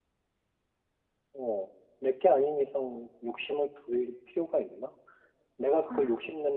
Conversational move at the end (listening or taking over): listening